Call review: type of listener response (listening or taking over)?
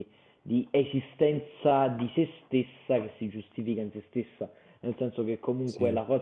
listening